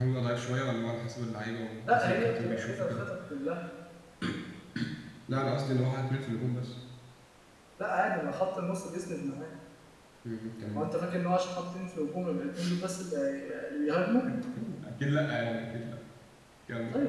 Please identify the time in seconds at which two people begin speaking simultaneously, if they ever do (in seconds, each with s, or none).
1.9 s